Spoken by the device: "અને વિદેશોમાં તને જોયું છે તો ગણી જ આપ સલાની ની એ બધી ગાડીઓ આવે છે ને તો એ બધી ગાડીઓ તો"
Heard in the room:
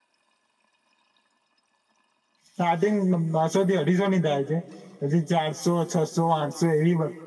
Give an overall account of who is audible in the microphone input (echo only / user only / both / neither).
user only